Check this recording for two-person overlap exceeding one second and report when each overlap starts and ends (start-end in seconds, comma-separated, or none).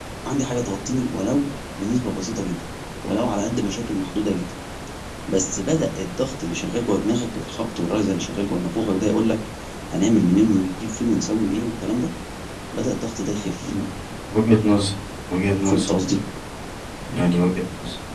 none